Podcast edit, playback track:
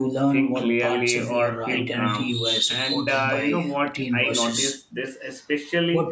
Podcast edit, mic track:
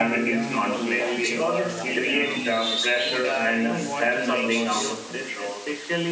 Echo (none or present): present